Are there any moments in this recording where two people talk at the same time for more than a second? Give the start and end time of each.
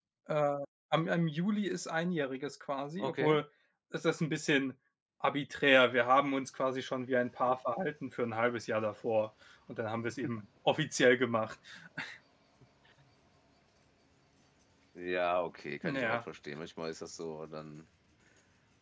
none

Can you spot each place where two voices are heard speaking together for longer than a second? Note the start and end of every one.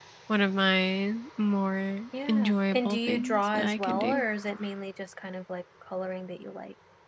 2.3-4.2

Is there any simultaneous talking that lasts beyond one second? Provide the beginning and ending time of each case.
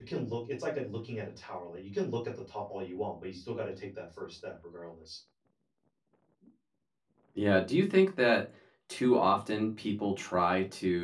none

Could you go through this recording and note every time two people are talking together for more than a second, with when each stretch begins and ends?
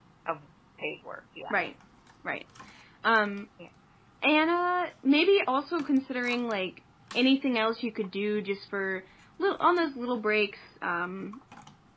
none

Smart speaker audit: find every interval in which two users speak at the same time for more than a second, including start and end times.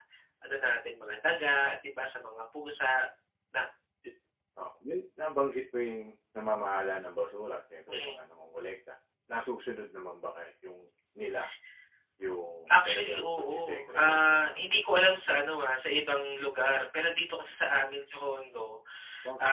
12.7-14.6

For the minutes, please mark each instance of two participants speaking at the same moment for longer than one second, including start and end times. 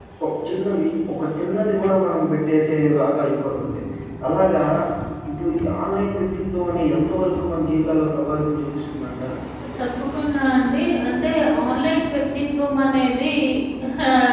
none

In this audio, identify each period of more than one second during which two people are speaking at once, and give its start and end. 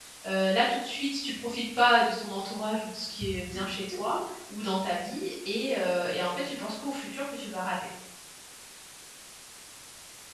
none

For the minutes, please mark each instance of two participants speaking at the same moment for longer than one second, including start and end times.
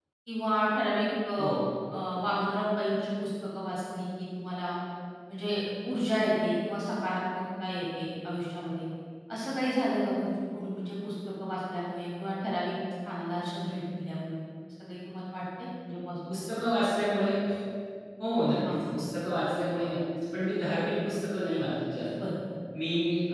none

